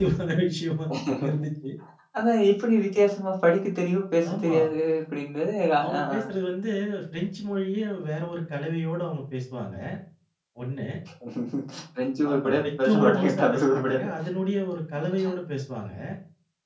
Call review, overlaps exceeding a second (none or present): present